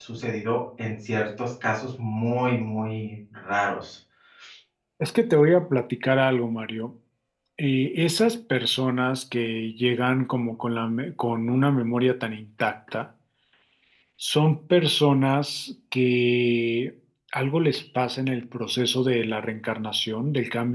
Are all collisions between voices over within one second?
Yes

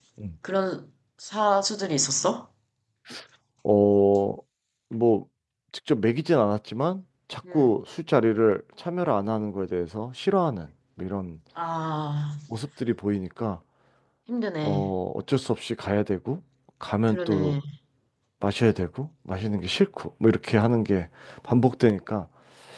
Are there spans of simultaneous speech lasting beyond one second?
No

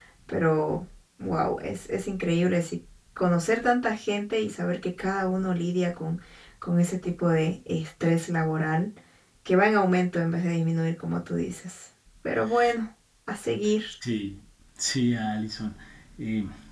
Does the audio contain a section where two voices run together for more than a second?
No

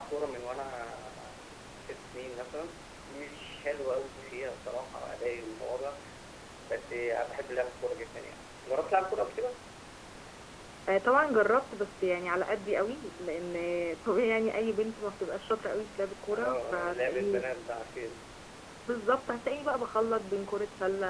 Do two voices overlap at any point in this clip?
Yes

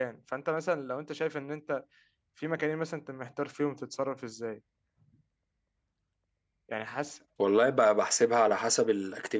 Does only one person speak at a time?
Yes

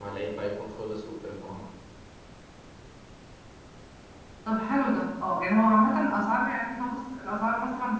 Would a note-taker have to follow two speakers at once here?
No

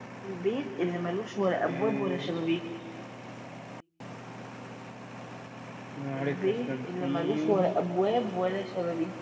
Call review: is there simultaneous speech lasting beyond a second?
Yes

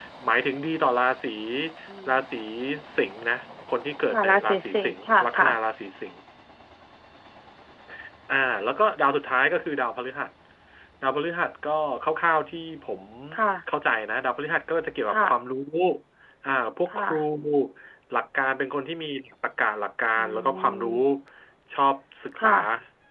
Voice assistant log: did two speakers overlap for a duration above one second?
Yes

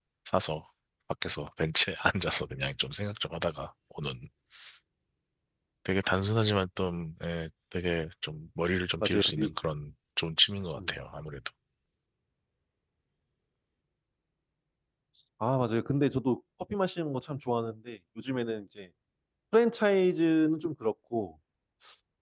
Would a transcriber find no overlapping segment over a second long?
Yes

